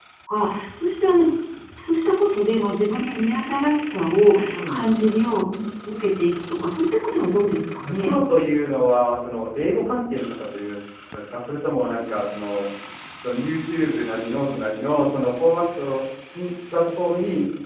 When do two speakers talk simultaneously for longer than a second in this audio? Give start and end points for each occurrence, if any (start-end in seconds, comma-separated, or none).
none